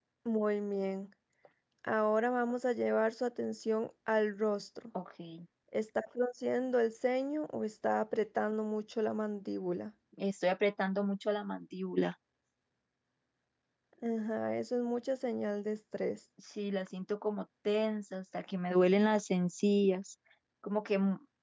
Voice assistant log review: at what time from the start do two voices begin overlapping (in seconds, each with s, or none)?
none